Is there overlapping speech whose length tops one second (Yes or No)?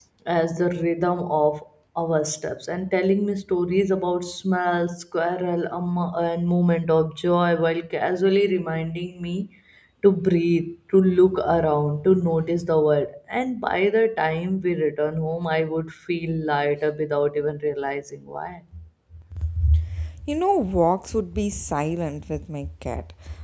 No